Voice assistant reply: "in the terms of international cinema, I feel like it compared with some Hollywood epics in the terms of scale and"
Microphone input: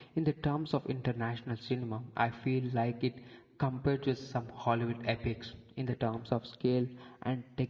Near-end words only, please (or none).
none